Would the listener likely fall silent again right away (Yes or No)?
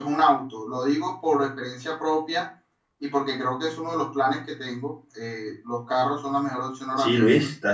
No